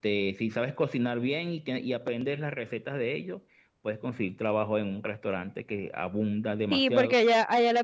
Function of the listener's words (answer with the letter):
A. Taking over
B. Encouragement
A